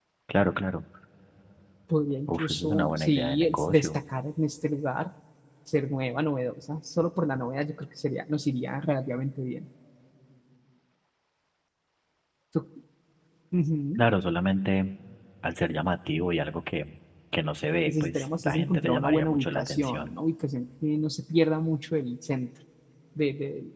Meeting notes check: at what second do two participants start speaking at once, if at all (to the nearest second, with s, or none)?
2 s